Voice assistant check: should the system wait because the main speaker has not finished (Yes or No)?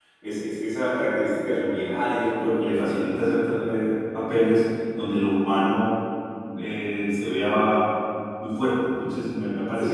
No